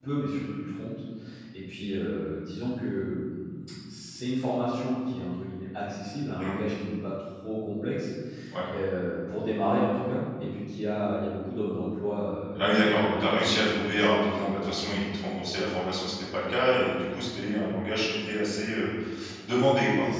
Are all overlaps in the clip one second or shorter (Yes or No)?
No